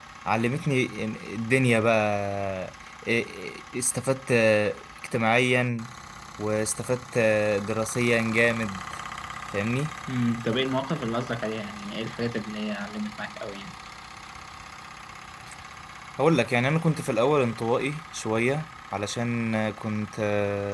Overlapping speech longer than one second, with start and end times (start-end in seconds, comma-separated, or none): none